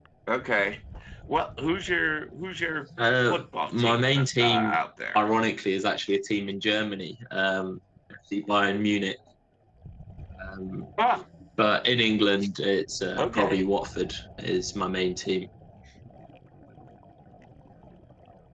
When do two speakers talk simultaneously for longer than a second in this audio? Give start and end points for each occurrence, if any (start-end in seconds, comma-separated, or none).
3.3-4.8